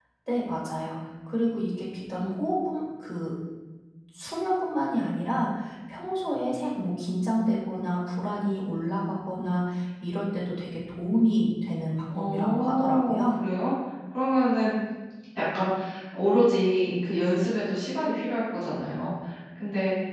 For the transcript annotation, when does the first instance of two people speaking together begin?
12.1 s

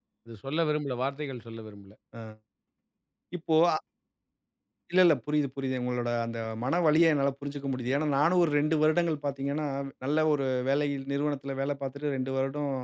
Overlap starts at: none

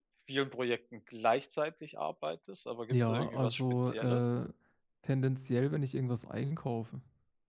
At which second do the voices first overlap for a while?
2.9 s

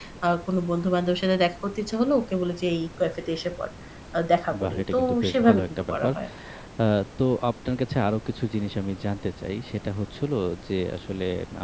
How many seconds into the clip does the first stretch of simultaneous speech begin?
4.6 s

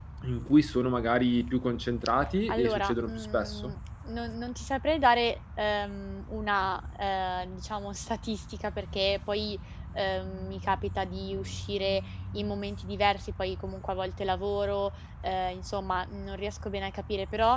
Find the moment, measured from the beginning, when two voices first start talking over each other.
2.5 s

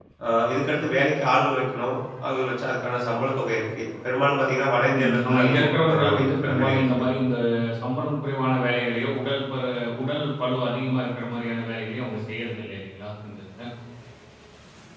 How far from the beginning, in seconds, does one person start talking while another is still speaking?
4.9 s

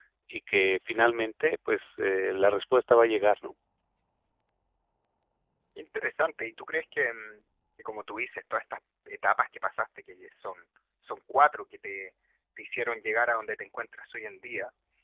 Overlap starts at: none

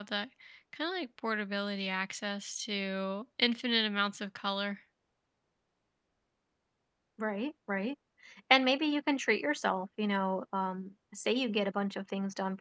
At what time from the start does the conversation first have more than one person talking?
none

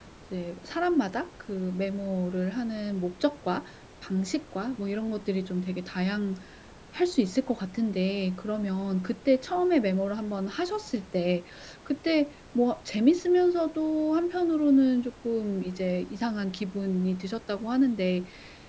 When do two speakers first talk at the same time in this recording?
none

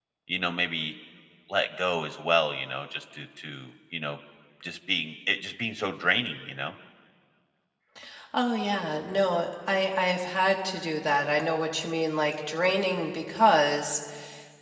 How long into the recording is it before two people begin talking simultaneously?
none

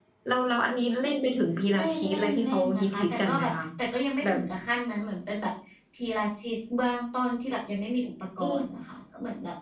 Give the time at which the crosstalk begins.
1.7 s

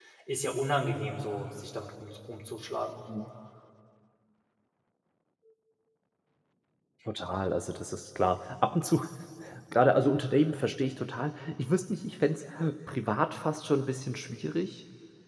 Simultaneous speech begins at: none

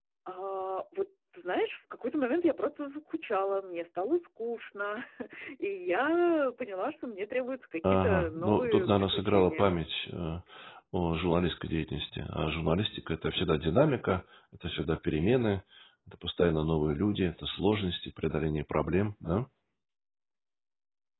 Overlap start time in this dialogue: 7.8 s

